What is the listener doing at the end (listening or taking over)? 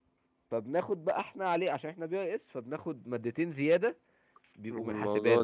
taking over